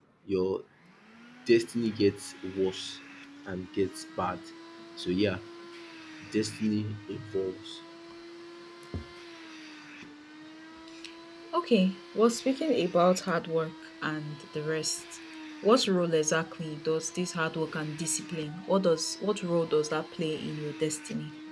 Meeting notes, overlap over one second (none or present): none